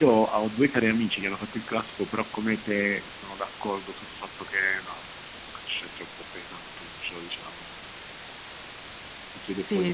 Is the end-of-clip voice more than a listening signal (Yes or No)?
Yes